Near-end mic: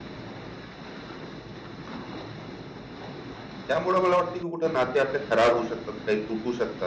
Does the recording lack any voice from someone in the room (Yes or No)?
No